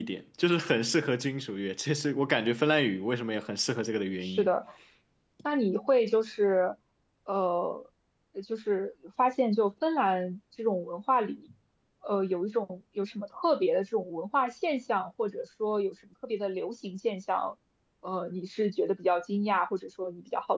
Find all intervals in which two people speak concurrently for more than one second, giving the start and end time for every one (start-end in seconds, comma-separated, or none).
none